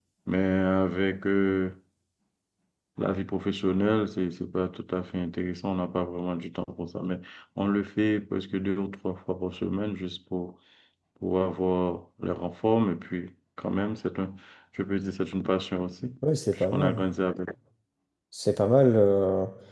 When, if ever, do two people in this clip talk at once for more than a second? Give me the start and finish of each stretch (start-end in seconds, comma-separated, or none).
none